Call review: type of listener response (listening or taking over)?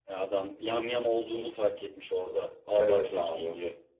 taking over